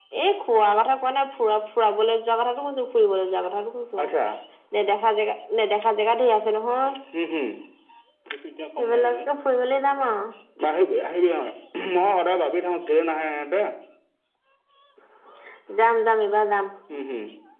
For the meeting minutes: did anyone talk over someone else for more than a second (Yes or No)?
No